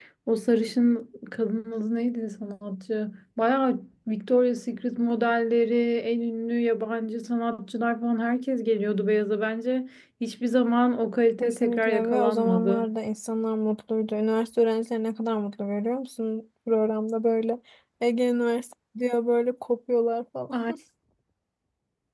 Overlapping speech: Yes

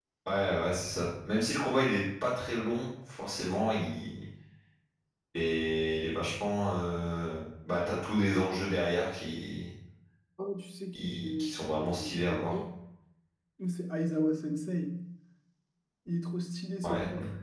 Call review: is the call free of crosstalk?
No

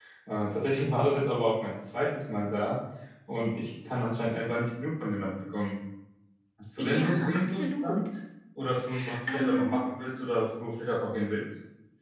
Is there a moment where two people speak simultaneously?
Yes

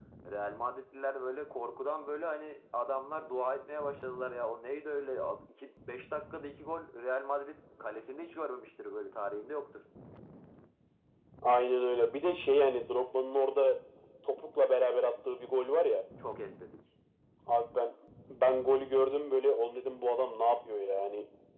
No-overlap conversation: Yes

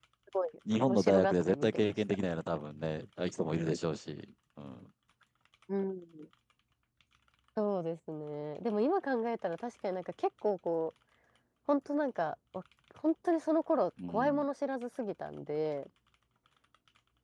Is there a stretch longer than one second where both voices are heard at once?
Yes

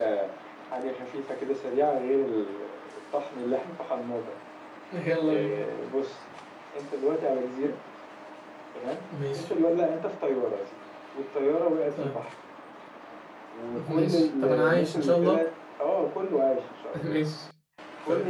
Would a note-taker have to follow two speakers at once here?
Yes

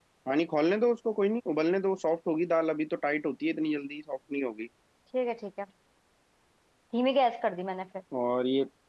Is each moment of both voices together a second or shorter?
Yes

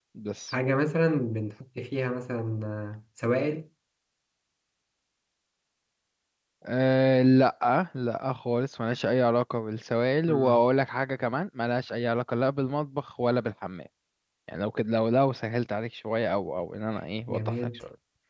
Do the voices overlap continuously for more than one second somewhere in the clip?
No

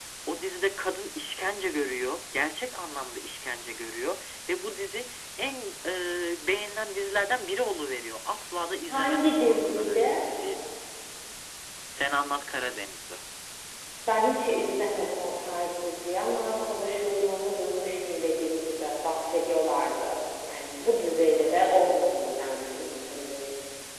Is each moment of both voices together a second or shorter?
No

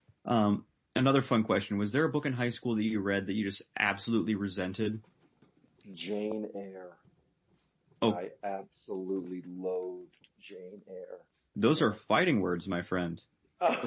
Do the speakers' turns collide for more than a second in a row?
No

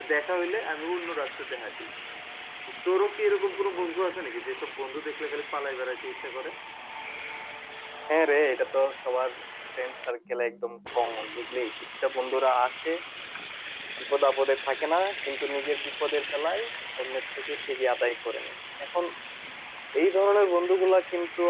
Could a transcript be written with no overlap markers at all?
Yes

